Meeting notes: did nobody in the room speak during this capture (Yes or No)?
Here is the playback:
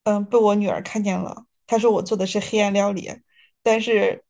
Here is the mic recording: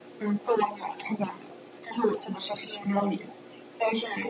Yes